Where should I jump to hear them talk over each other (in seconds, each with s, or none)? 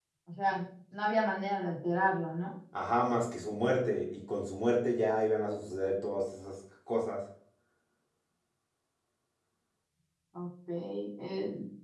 none